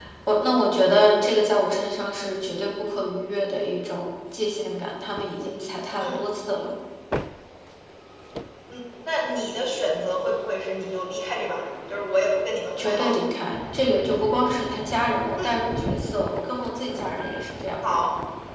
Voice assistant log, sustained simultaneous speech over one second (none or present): none